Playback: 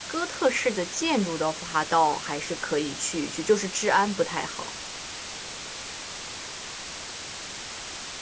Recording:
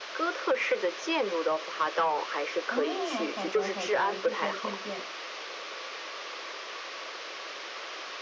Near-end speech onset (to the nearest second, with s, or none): 3 s